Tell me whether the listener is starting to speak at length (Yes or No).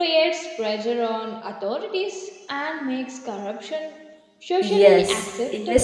Yes